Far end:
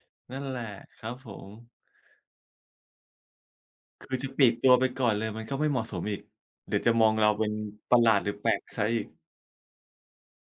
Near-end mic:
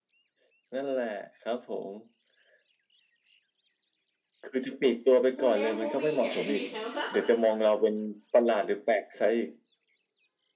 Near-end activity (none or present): present